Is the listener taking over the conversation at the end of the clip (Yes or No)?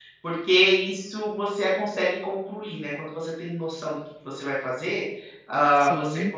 No